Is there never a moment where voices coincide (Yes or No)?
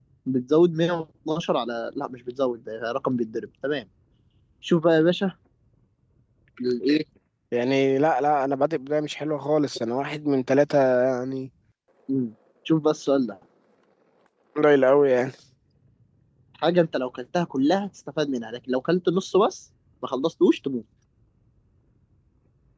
Yes